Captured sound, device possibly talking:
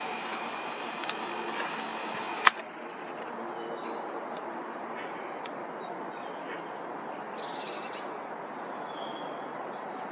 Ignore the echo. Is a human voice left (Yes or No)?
No